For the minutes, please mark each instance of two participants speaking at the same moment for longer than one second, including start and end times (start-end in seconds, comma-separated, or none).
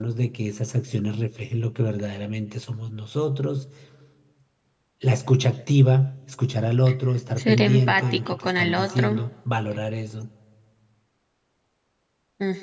7.4-9.2